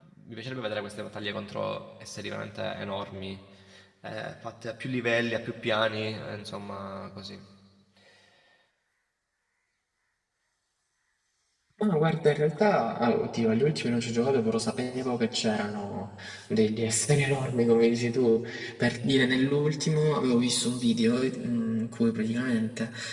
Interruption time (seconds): none

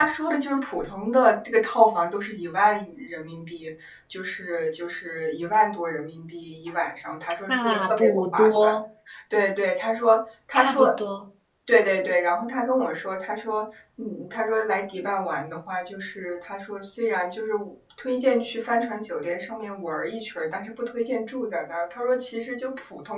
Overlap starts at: 7 s

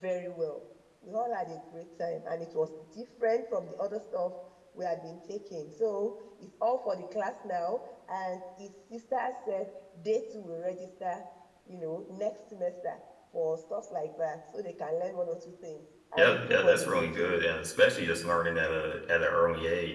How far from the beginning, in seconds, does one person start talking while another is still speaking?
16 s

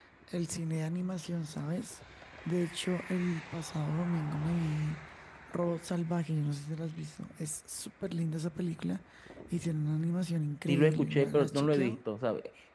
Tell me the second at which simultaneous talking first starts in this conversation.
11 s

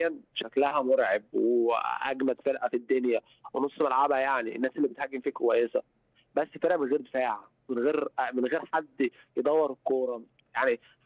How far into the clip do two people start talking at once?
none

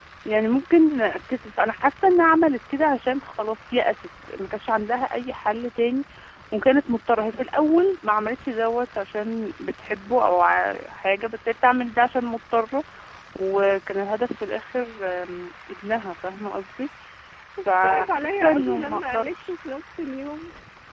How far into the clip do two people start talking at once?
18 s

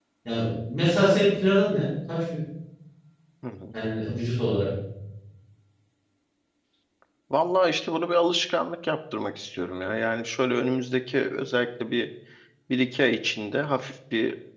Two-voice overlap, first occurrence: none

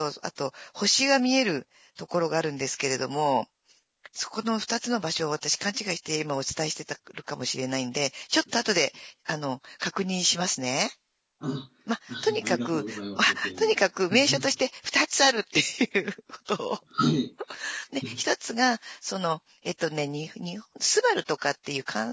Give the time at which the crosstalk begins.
12 s

